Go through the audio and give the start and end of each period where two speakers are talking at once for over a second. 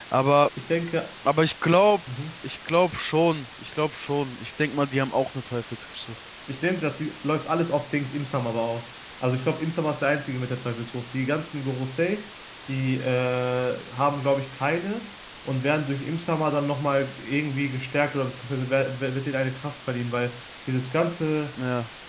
none

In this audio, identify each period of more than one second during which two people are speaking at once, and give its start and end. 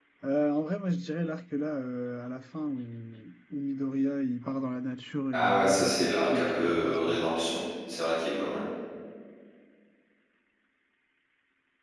5.3-7.2

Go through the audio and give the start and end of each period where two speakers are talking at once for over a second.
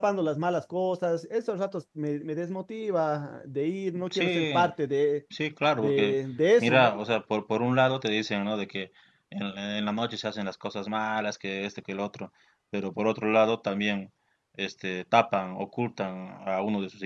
none

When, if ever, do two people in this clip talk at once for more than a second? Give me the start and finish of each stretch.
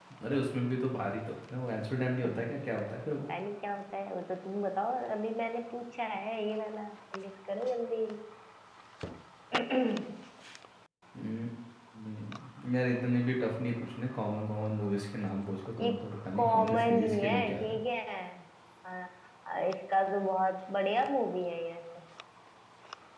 16.4-17.8

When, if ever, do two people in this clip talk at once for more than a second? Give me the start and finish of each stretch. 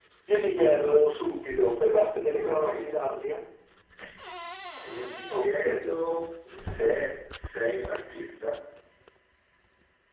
none

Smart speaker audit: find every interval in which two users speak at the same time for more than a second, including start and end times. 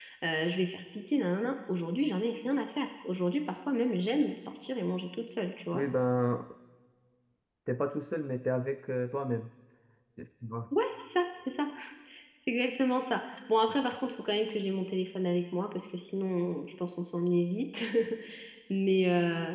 none

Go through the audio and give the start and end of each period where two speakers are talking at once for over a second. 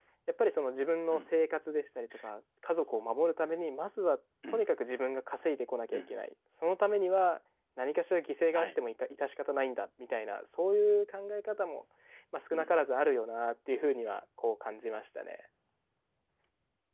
none

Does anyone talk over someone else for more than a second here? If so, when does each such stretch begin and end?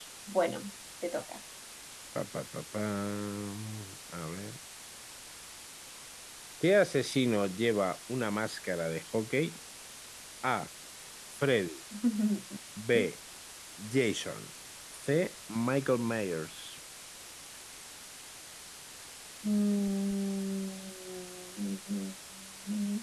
none

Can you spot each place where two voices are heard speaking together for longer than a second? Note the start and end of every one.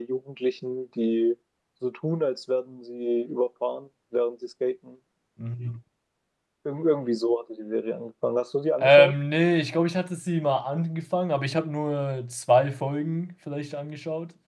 none

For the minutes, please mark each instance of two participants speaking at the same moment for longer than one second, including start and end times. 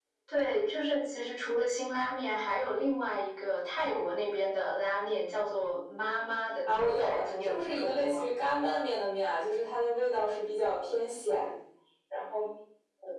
6.7-8.2

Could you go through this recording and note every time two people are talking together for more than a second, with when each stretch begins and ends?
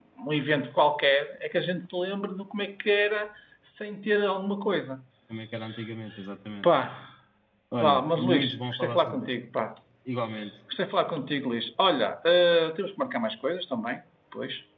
7.8-9.3

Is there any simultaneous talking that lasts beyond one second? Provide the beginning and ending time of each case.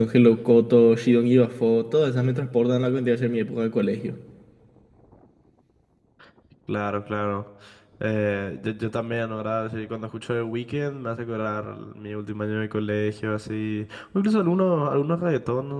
none

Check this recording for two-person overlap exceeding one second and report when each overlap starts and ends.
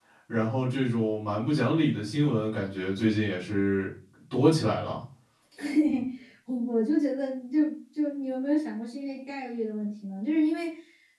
none

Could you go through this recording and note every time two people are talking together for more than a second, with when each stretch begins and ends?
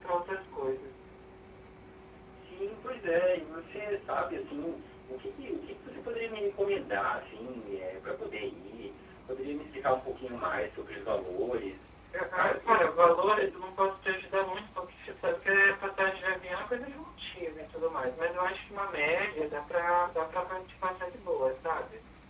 12.3-13.6

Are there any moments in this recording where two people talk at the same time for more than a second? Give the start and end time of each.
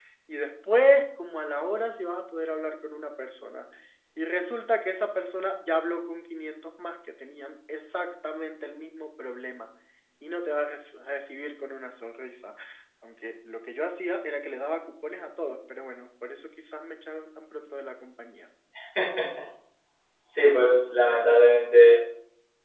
none

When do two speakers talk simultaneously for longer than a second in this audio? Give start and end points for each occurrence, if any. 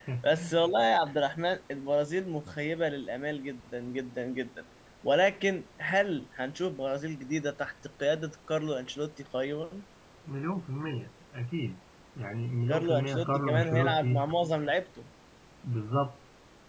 12.7-14.2

